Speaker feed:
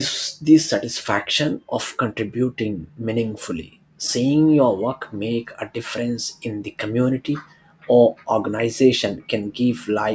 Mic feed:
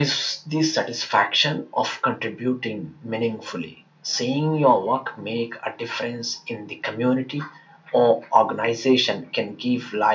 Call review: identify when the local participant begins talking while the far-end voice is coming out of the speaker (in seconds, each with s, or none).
none